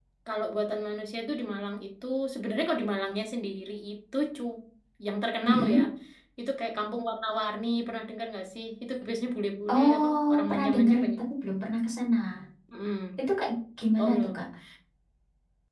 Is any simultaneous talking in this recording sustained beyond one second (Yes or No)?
Yes